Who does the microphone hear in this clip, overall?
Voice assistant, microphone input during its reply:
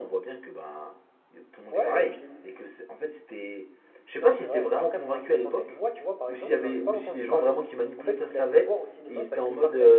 echo only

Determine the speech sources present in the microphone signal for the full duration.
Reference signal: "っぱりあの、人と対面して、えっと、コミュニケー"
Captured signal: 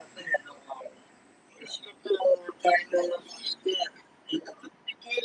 echo only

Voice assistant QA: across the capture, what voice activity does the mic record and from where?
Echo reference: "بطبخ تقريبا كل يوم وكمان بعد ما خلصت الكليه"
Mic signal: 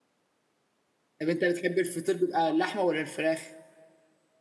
user only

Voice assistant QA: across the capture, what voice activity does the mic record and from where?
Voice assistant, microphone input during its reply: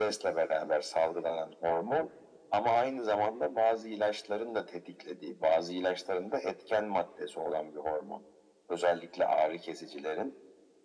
echo only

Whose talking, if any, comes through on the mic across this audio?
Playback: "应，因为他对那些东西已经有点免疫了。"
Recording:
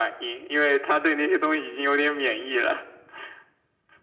echo only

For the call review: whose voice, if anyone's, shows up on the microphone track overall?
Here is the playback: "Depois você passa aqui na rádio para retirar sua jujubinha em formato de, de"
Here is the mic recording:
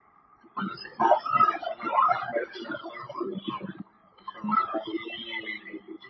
echo only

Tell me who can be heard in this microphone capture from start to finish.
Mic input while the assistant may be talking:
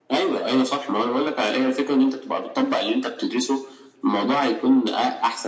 echo only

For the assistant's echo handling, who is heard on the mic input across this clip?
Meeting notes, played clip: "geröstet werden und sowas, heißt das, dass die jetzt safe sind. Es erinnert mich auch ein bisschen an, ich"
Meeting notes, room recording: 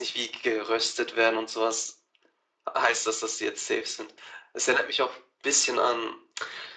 echo only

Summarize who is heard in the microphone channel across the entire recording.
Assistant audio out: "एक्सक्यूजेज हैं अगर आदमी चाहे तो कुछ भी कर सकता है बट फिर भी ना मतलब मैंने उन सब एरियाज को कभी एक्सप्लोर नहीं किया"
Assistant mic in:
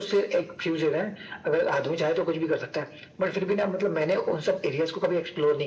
echo only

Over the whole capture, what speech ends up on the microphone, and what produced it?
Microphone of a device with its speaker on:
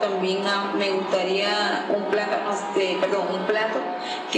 echo only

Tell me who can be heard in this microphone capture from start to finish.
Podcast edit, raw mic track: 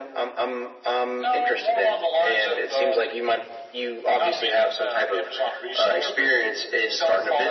echo only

